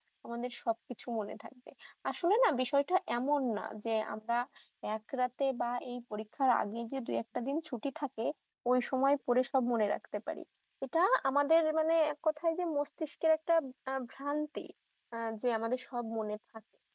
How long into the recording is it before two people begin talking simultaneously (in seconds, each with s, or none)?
none